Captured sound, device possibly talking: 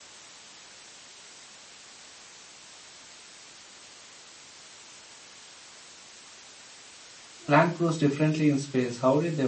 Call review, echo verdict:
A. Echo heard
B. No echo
B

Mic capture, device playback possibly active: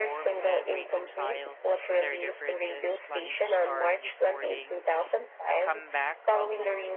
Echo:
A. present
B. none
A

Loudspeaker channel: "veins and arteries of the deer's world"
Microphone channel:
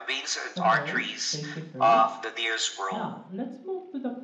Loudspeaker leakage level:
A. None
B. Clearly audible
B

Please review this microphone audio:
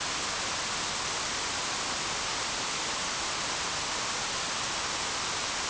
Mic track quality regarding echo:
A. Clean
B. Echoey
A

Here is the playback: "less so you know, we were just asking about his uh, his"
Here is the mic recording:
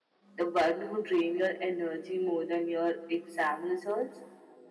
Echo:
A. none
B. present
A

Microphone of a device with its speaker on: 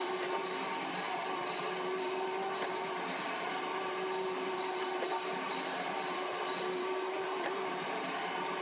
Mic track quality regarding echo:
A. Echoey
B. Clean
B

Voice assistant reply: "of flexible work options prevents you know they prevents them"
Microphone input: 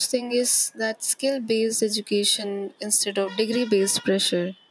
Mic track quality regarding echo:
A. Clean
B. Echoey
A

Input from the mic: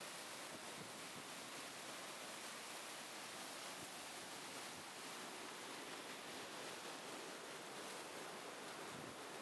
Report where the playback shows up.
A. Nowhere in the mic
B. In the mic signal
A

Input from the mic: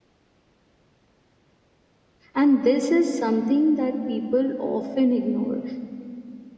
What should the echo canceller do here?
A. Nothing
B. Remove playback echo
A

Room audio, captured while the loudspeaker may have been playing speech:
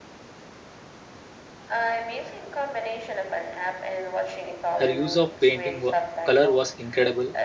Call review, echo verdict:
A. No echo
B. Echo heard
B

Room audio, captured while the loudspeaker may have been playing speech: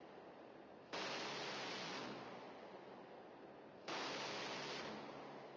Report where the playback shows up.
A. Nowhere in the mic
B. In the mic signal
A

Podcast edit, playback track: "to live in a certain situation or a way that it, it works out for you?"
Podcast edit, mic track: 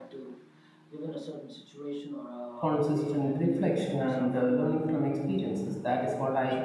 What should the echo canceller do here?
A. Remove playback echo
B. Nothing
A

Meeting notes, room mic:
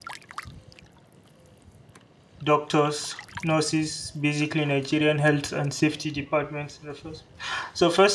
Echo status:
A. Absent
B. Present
A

